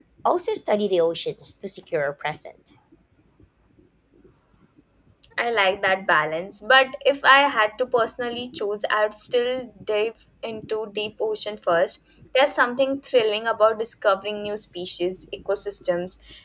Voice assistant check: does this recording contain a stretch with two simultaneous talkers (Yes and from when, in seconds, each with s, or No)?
No